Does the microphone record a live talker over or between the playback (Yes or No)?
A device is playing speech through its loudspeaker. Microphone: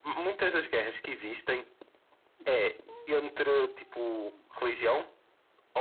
No